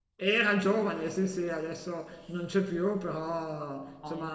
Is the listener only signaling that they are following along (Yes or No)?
Yes